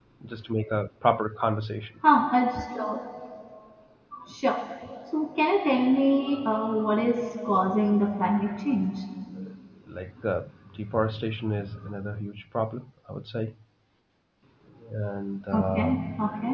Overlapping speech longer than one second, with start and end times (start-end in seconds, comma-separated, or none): none